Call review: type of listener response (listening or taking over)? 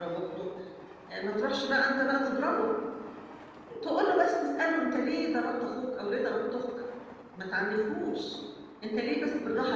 listening